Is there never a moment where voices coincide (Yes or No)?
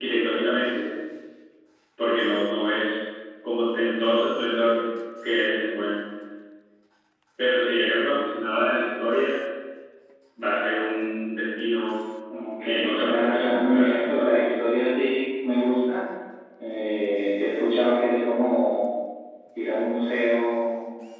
No